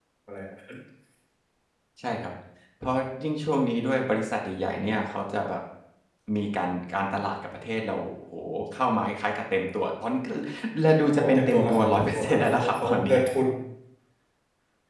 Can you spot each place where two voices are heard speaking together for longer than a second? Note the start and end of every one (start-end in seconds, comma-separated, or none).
11.2-13.2